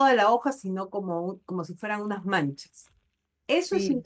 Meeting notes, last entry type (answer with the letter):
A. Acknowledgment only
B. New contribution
B